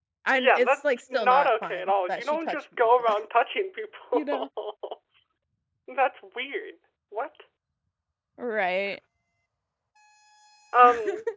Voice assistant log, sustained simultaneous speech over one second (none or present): present